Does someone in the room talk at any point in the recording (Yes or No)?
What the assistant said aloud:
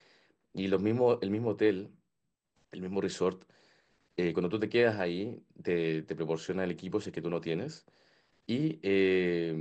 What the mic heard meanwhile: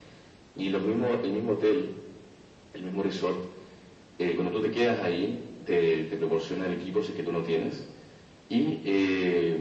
No